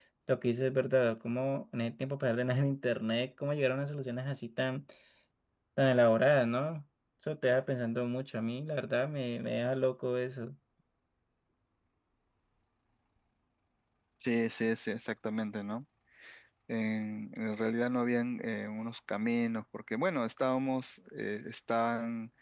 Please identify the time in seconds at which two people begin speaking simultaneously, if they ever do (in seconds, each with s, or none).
none